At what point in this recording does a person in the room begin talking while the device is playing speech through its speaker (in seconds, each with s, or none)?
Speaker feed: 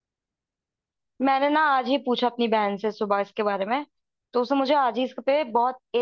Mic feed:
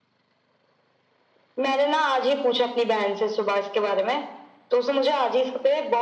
none